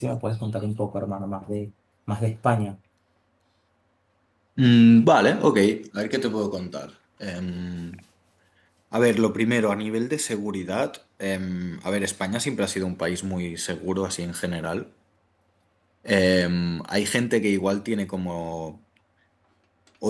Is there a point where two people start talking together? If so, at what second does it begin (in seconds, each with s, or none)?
none